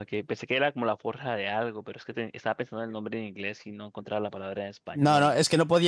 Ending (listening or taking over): taking over